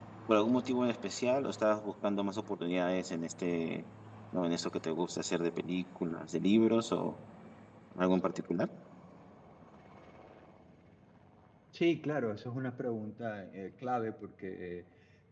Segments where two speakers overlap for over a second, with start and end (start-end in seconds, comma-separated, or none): none